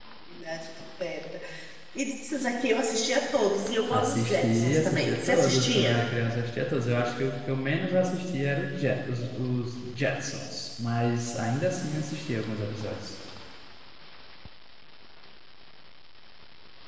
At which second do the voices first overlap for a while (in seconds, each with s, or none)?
3.9 s